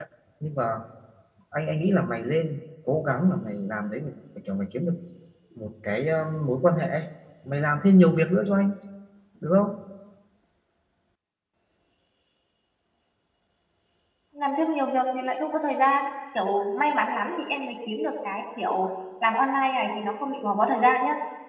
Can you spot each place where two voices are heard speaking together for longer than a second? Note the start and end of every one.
none

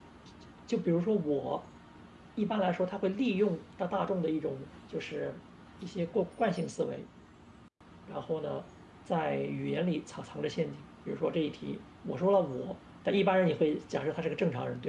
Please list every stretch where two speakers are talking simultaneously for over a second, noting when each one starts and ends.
none

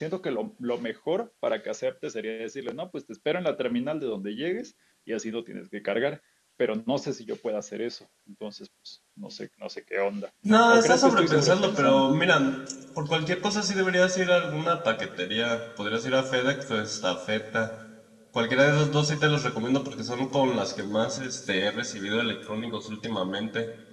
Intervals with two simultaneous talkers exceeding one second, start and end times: 10.7-12.1

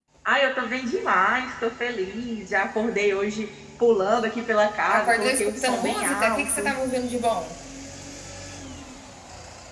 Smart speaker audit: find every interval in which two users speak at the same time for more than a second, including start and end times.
5.0-6.7

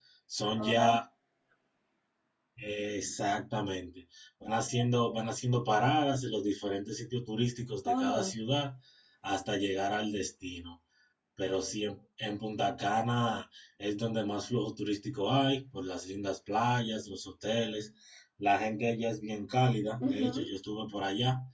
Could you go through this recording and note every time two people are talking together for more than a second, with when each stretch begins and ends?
none

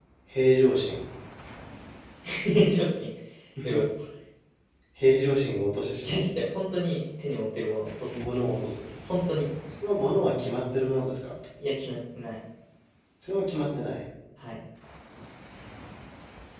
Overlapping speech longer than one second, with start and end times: none

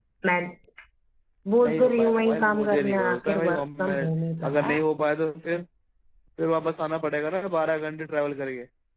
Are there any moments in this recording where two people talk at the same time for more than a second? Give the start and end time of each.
1.6-4.1

